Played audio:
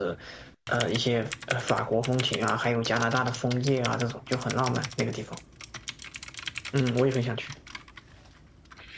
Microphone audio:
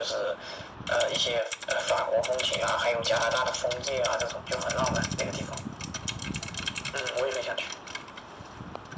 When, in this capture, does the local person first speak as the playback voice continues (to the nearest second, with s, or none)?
none